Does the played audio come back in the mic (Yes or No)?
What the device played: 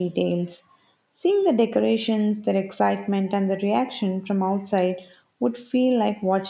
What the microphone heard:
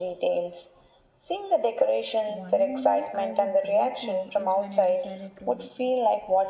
Yes